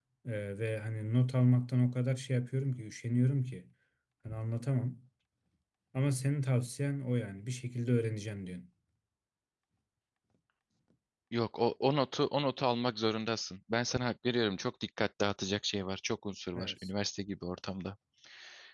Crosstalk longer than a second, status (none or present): none